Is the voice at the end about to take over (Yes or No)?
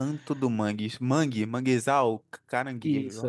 Yes